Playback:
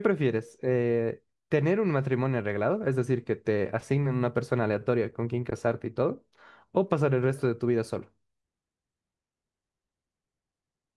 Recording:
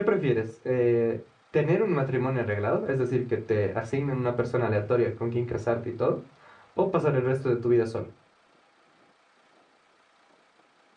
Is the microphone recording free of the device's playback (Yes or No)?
No